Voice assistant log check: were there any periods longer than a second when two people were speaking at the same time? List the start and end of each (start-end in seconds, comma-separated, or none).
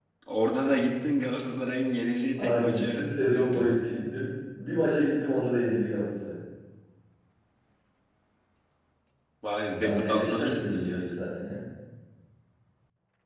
2.4-4.2, 9.8-11.1